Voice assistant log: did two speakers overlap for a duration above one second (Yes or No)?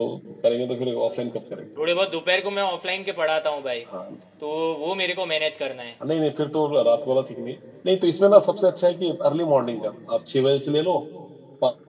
No